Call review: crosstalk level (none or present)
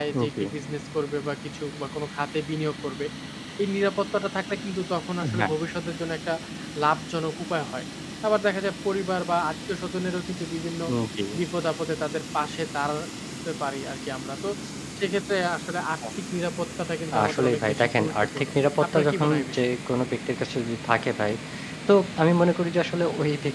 present